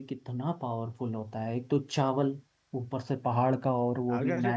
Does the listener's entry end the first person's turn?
Yes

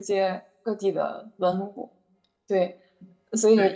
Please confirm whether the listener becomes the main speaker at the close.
No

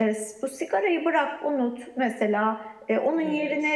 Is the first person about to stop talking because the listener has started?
No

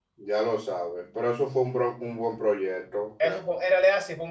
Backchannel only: No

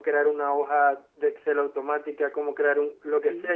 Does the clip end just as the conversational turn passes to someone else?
No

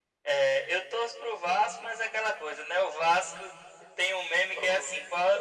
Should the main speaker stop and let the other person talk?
No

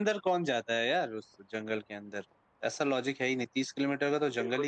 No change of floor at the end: No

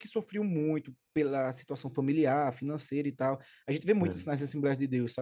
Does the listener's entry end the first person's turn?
No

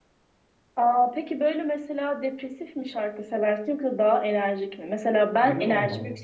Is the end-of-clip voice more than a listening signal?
No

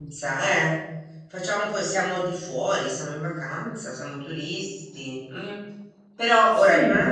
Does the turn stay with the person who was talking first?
Yes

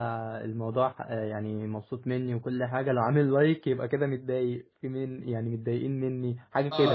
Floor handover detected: Yes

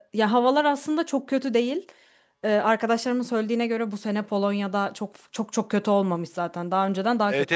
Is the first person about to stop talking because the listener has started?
Yes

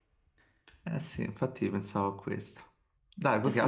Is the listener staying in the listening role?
No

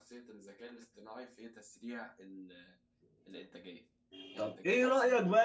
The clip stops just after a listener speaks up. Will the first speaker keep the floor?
No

